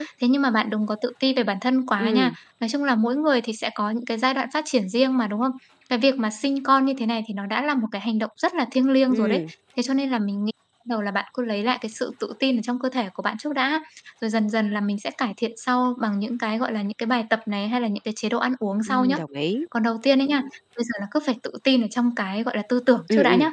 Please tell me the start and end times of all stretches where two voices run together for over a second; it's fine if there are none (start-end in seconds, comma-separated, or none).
none